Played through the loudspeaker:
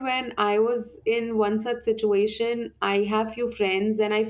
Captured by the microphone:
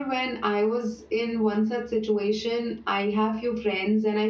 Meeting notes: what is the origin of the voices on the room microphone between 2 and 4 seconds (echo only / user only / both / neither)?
echo only